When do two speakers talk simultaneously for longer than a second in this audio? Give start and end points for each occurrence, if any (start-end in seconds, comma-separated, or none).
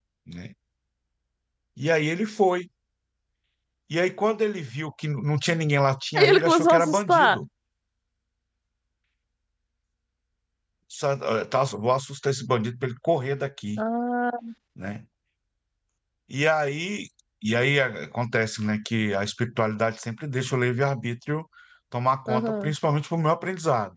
6.2-7.4